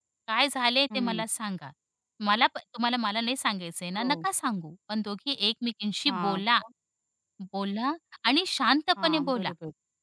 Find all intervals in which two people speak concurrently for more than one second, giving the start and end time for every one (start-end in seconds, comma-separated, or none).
none